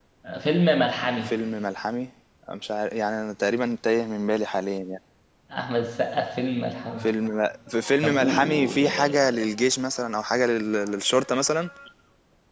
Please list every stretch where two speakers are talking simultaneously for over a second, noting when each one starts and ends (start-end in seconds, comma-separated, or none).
8.0-9.4